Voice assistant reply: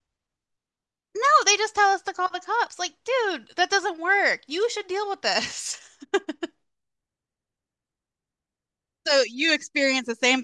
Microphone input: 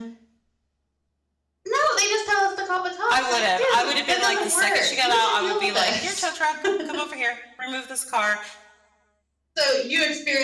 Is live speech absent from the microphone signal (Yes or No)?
No